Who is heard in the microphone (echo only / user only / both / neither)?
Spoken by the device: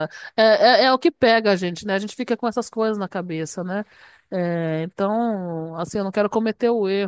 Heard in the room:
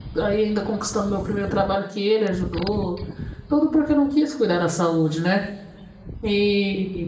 user only